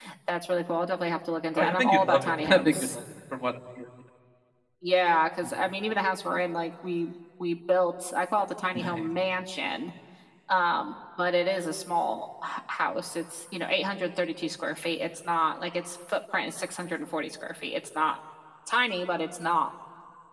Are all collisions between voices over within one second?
No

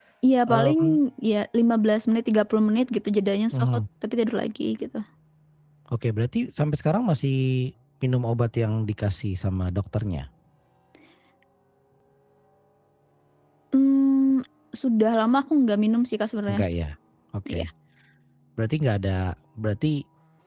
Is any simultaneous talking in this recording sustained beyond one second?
No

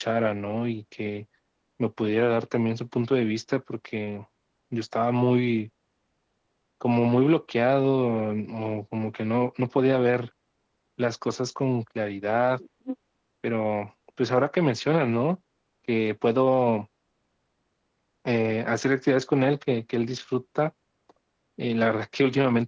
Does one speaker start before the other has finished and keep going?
No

